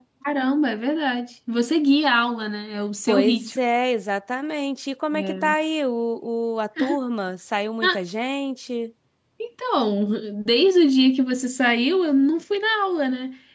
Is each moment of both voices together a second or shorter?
Yes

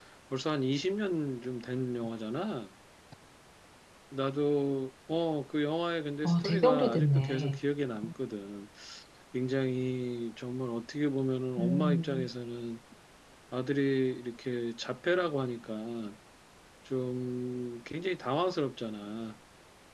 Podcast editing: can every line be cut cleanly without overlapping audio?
No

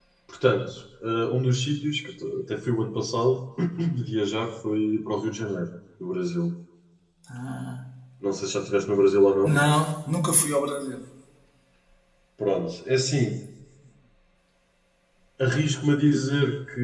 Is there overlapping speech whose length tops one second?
No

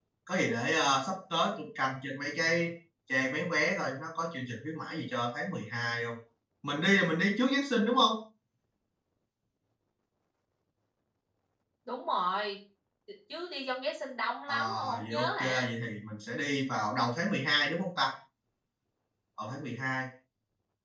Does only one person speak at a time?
No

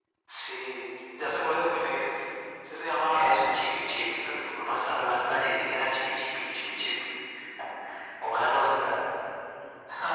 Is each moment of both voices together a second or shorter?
No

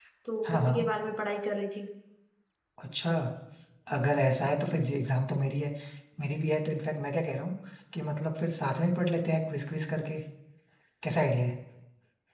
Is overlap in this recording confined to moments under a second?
Yes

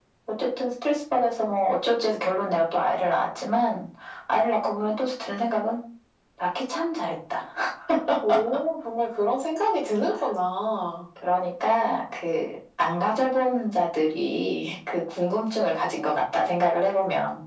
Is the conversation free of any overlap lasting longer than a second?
Yes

